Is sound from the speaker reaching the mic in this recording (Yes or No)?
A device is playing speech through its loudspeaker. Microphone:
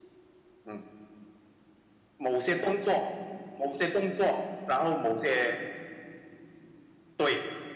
Yes